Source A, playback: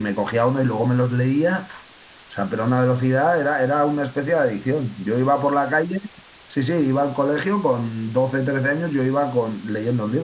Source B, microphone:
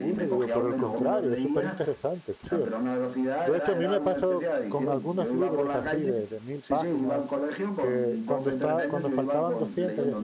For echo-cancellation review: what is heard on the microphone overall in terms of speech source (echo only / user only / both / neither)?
both